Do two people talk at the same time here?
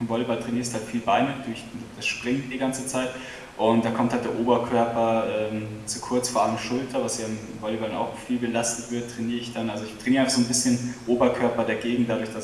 No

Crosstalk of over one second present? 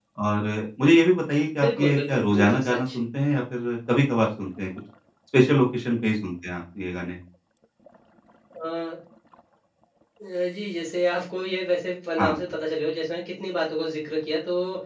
Yes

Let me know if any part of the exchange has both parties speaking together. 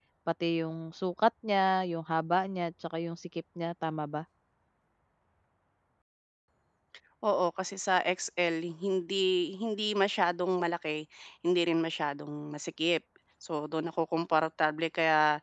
No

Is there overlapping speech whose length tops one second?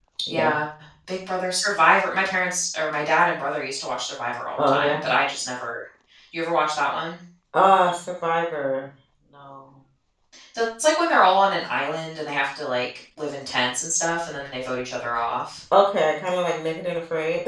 No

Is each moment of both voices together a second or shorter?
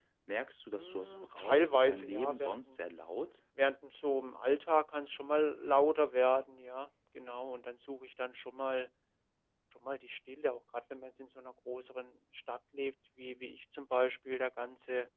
No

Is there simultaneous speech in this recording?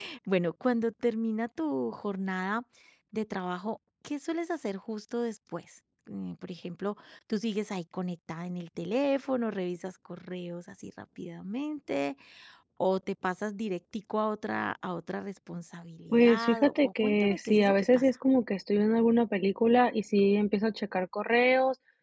Yes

